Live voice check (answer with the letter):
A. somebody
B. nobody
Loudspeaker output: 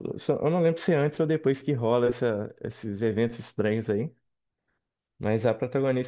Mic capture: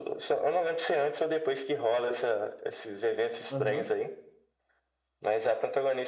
A